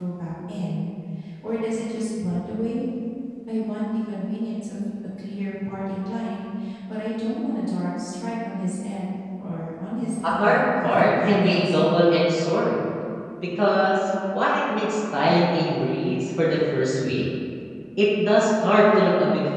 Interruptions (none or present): present